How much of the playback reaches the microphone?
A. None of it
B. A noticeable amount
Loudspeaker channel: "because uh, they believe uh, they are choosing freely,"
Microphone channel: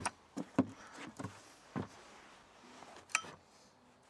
A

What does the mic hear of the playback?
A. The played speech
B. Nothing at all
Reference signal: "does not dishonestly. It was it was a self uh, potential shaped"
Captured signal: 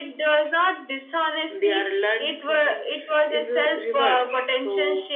A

